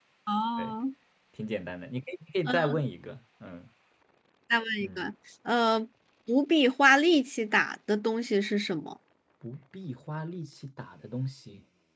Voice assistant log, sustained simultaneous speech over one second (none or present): none